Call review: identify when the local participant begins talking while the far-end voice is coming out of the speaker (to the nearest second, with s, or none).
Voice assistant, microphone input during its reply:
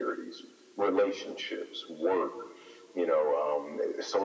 none